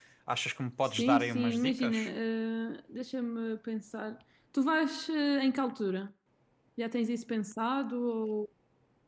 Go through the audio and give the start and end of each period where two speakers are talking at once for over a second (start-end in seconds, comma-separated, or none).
0.8-2.1